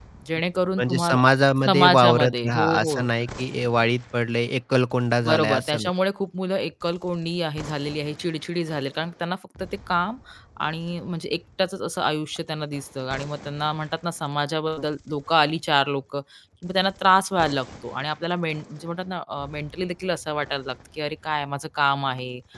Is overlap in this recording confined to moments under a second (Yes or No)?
No